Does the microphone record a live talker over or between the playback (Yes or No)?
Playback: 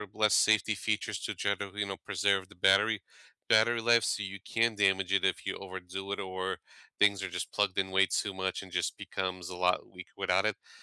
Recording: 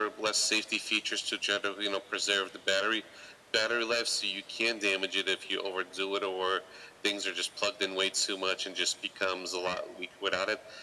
No